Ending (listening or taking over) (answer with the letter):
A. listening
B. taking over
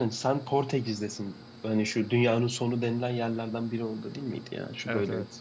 B